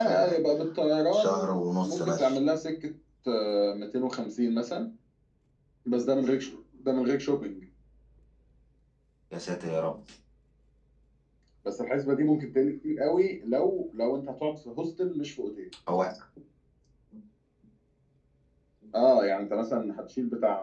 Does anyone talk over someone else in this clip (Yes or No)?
Yes